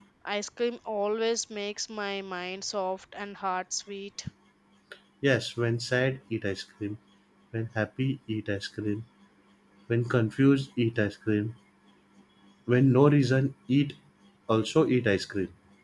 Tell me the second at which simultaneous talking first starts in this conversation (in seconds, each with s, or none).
none